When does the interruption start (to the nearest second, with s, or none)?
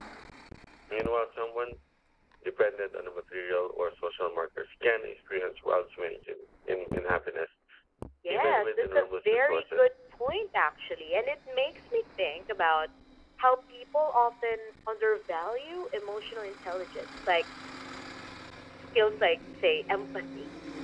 8 s